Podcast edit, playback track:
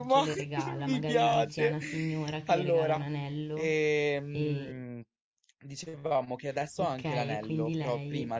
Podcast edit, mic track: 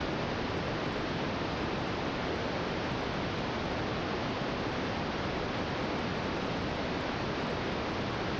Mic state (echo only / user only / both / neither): neither